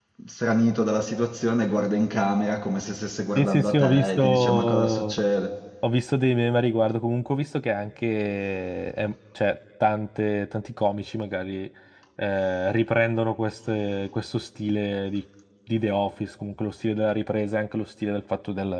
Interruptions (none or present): present